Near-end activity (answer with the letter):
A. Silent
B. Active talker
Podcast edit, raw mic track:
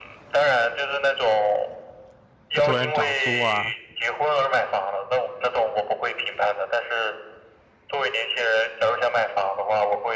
B